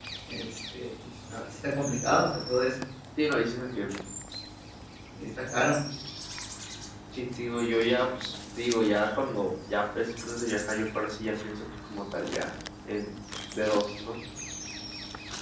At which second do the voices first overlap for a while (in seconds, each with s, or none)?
none